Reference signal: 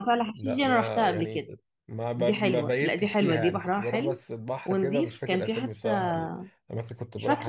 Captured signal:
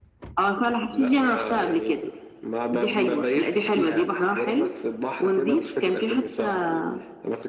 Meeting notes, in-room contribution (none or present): none